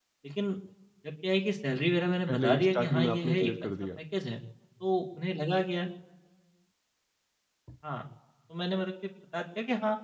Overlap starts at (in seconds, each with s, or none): 2.3 s